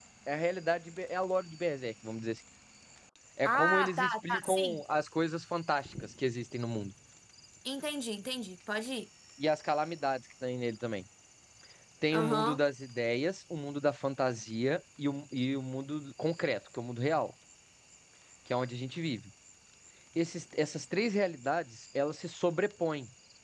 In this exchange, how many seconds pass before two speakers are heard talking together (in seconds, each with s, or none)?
3.5 s